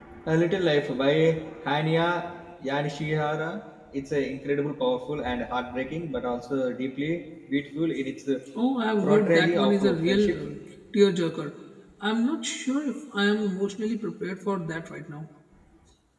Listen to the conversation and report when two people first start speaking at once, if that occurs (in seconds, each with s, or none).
9.0 s